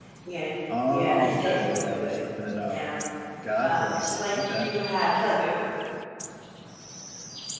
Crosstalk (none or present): present